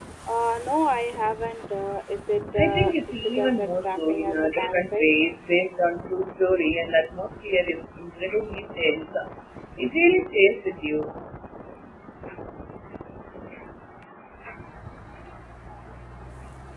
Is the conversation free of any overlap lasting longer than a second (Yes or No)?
No